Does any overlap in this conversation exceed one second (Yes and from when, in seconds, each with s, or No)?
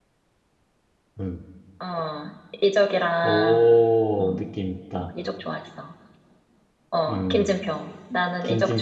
No